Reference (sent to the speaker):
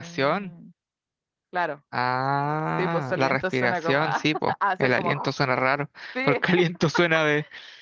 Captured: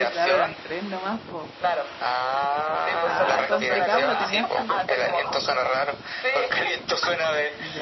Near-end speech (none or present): present